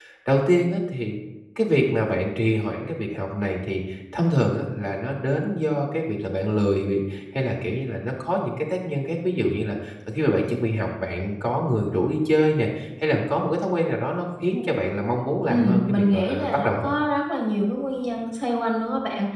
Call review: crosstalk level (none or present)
present